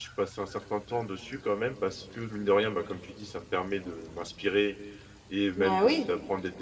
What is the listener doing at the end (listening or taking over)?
listening